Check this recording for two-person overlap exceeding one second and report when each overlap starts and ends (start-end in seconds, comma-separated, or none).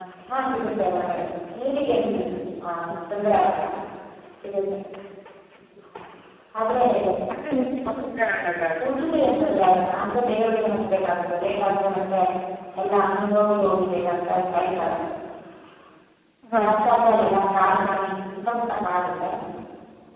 none